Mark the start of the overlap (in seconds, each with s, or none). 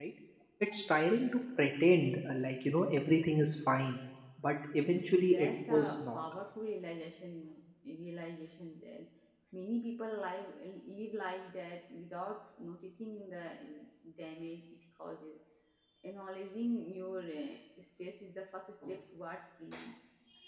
4.8 s